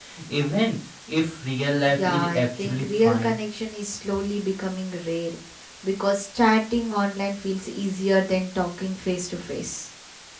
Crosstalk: present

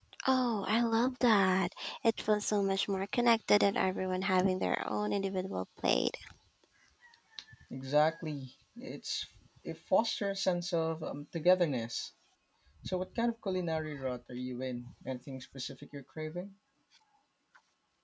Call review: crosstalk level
none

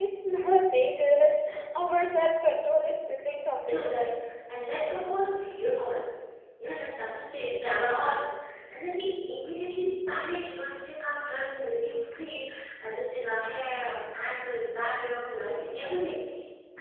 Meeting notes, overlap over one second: none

